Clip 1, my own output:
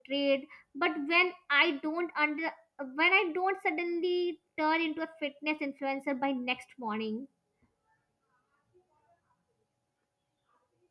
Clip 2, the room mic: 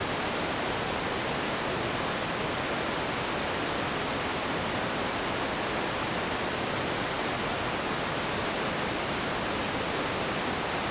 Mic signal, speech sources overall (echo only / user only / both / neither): neither